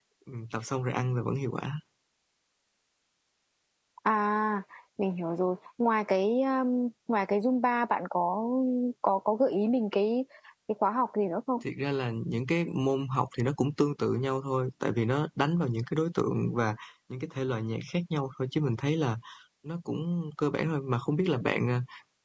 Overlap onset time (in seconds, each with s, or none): none